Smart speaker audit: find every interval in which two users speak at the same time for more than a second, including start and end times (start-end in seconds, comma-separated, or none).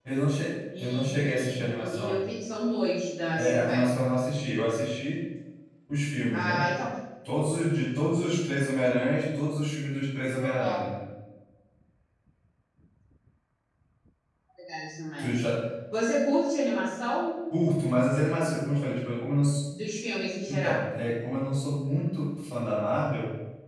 0.8-2.2